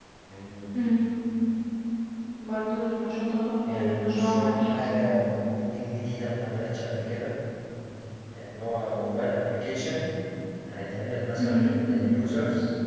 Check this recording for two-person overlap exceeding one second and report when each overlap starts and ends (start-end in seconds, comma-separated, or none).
3.7-5.1